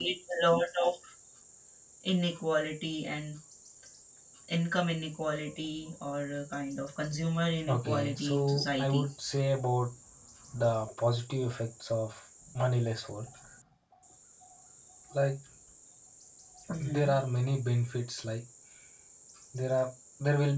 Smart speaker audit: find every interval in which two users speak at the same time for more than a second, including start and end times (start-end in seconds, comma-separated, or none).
7.7-9.1